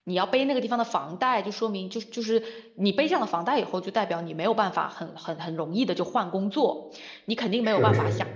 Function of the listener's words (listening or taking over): listening